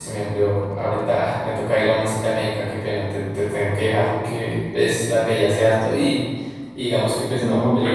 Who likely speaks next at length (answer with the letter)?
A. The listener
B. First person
A